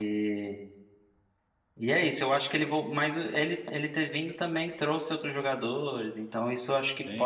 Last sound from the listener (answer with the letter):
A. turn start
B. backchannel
A